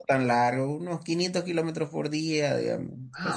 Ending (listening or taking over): taking over